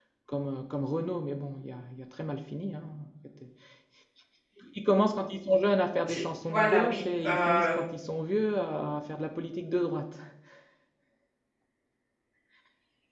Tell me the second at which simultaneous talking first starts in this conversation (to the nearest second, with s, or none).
6 s